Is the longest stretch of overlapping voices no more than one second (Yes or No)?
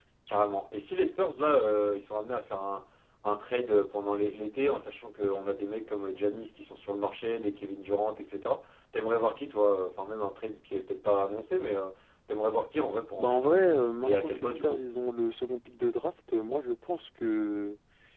No